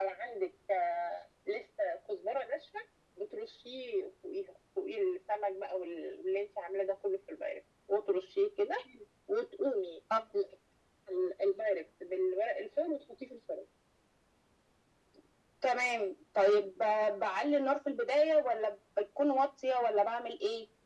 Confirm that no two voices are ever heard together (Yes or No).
Yes